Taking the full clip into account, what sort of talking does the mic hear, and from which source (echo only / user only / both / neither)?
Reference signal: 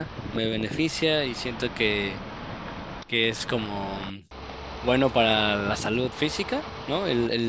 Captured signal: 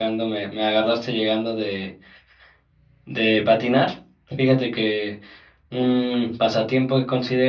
user only